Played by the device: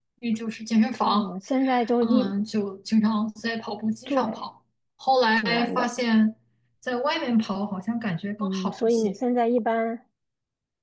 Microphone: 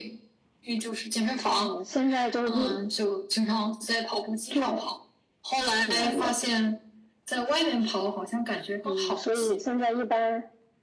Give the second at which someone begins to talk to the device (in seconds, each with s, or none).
none